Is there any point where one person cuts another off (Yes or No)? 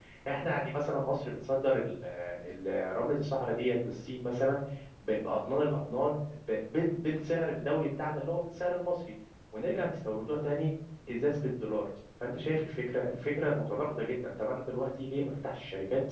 No